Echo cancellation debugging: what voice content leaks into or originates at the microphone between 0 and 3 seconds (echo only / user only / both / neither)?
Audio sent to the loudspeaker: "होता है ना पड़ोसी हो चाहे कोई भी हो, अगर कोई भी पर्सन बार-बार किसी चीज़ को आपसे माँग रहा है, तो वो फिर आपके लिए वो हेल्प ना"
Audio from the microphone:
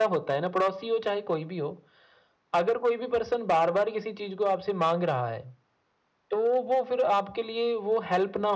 echo only